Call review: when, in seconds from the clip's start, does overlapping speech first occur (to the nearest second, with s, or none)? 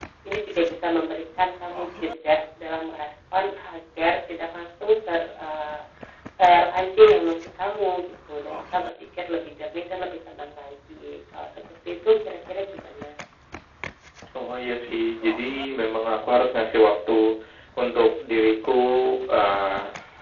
none